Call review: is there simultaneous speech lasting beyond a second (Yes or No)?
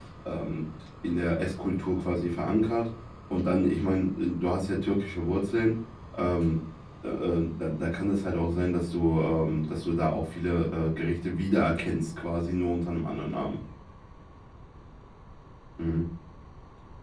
No